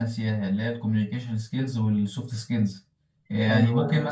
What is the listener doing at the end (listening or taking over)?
listening